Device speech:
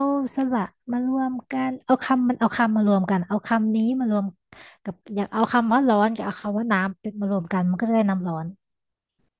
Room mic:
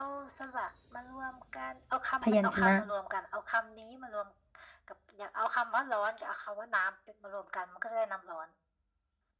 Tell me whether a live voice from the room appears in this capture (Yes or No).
Yes